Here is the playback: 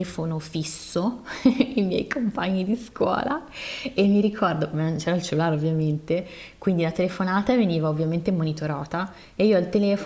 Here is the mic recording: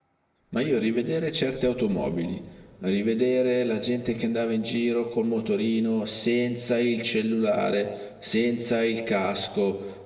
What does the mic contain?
user only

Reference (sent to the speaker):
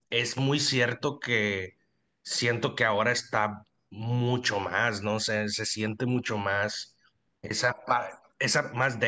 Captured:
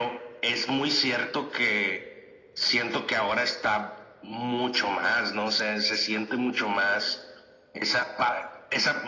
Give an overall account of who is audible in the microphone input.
echo only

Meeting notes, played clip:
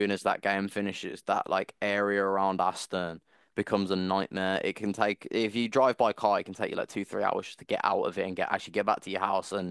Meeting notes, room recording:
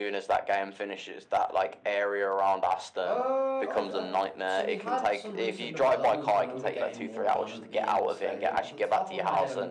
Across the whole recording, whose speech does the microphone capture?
both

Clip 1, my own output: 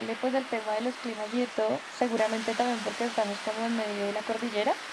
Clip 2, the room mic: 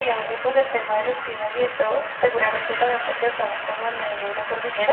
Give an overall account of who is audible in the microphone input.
echo only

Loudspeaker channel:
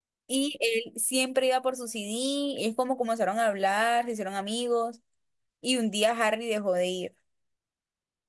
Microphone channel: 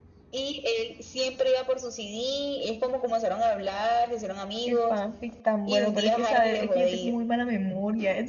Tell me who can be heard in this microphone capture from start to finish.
both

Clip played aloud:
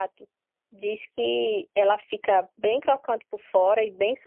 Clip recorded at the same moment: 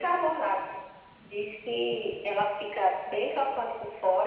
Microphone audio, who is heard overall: echo only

